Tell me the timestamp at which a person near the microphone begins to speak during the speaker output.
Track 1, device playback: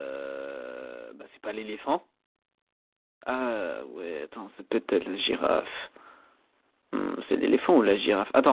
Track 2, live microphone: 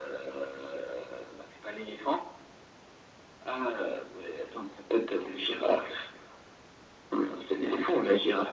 none

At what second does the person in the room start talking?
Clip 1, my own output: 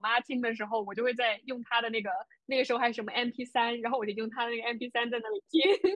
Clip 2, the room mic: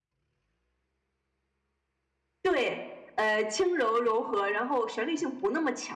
2.4 s

